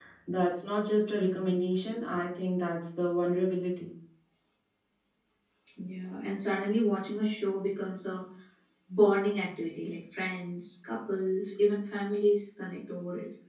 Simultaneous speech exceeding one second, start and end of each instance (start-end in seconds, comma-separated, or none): none